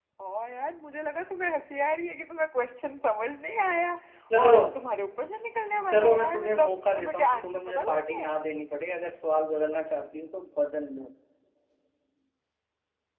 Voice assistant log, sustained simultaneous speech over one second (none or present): present